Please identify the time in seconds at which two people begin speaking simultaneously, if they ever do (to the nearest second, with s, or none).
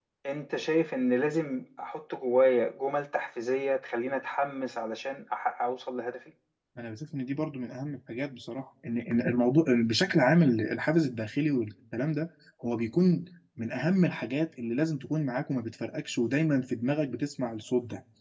none